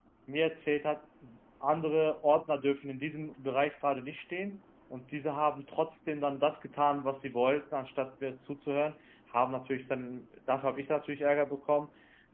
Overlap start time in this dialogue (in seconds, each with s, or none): none